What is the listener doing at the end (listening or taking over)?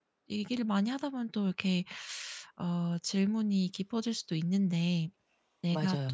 listening